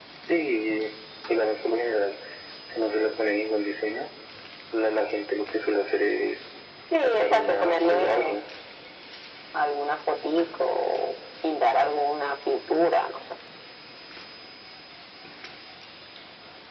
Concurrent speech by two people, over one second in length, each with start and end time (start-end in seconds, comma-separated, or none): 7.0-8.3